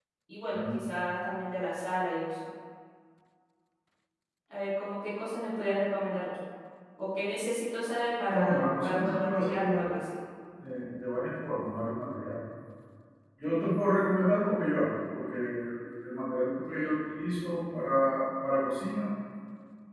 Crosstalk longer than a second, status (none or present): present